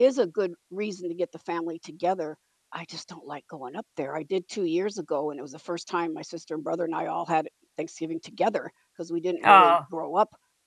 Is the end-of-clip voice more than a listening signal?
No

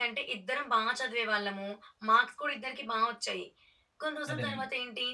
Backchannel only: Yes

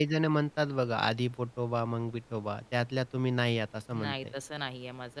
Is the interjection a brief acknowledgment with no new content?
No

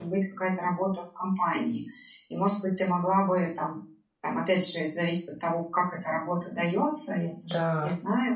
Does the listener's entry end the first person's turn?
No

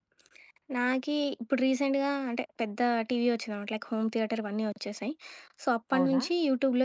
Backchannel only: Yes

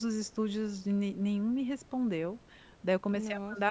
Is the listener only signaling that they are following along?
Yes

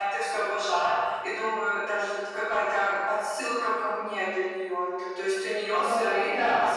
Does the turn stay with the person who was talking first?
Yes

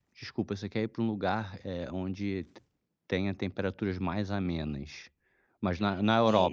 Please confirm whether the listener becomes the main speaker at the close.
Yes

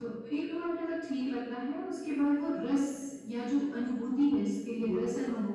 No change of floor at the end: Yes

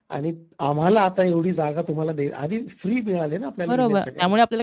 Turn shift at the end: Yes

